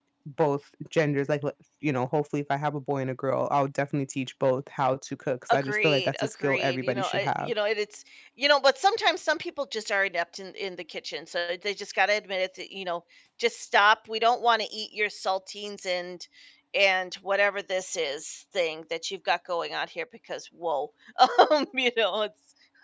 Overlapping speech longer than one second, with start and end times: 5.5-7.5

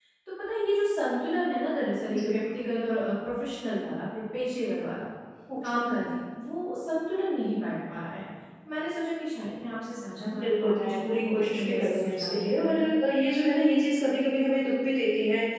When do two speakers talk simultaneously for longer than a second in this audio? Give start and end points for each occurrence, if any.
10.3-12.9

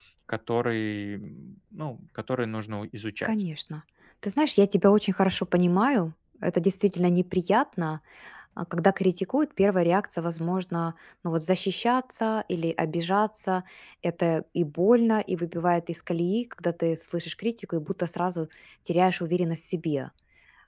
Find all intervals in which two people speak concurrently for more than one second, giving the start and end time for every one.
none

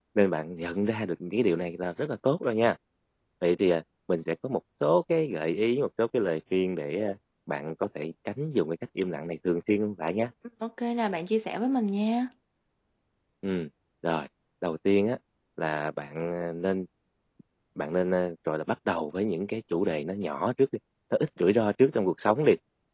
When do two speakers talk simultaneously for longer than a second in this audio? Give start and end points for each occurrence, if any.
none

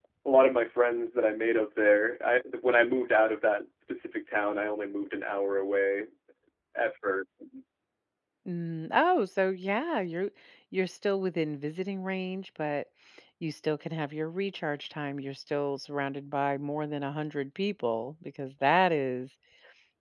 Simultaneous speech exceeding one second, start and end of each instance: none

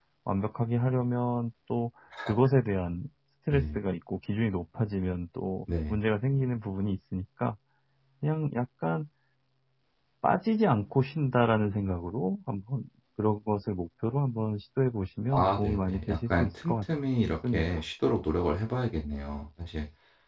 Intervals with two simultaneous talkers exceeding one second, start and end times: 15.3-16.9

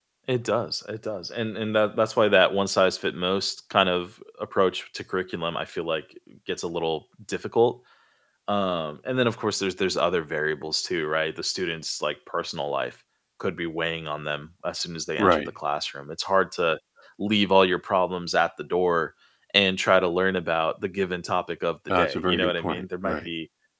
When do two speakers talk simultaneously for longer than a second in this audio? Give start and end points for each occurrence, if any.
21.9-23.3

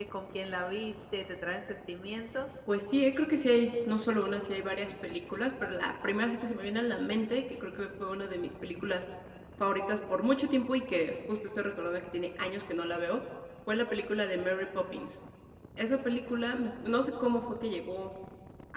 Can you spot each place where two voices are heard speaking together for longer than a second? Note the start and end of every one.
none

